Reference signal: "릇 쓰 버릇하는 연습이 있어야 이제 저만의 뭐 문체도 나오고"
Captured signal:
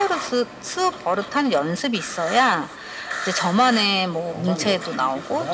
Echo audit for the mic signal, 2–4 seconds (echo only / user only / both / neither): echo only